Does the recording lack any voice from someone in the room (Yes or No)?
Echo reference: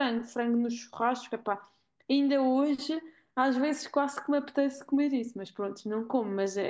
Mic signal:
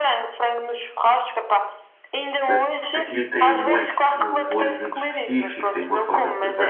No